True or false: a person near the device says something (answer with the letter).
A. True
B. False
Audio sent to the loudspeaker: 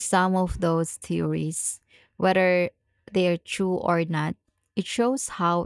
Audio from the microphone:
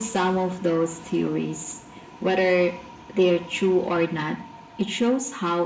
B